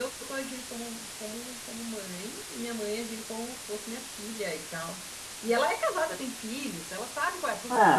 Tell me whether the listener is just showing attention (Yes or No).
No